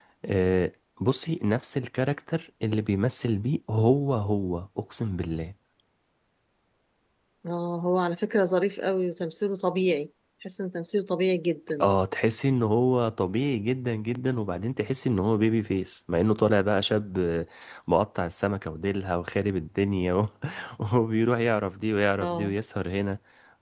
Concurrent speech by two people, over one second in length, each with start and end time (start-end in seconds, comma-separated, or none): none